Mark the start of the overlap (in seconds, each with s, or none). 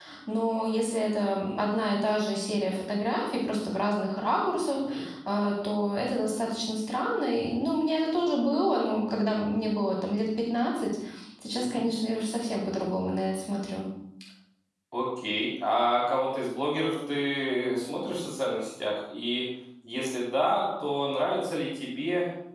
none